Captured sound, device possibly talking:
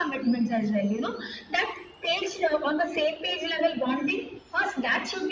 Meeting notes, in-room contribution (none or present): none